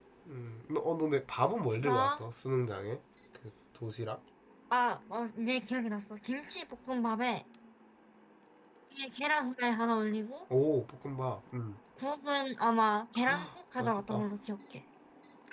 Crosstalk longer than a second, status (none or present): none